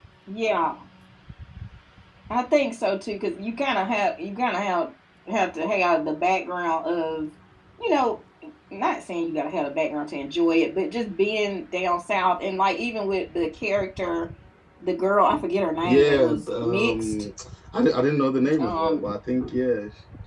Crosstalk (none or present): present